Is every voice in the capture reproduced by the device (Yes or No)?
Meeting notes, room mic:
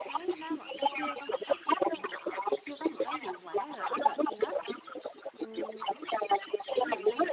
No